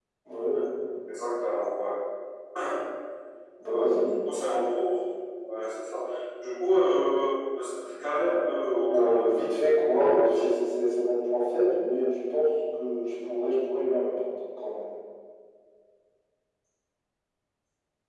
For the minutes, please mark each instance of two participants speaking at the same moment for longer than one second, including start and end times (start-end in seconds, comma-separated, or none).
8.8-10.5